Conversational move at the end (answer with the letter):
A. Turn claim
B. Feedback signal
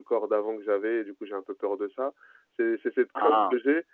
B